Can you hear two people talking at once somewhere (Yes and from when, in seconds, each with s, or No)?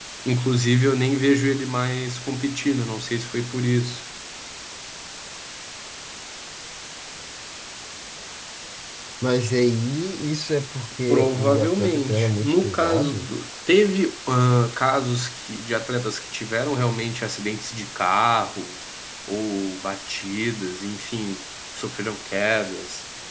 Yes, from 11.1 s